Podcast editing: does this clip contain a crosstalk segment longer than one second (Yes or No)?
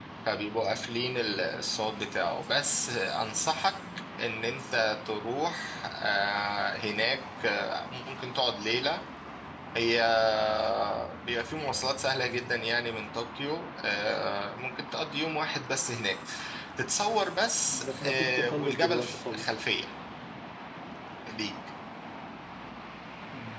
Yes